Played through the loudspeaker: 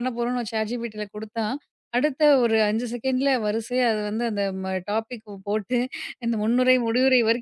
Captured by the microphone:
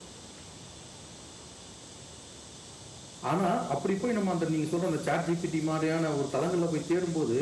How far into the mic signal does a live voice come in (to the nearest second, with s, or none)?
3 s